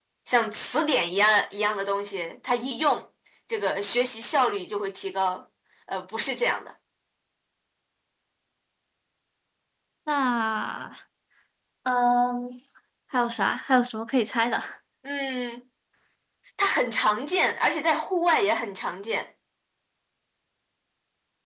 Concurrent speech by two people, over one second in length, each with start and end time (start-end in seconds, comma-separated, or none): none